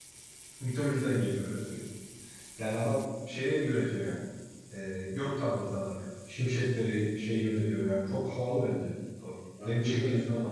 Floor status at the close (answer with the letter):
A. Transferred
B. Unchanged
B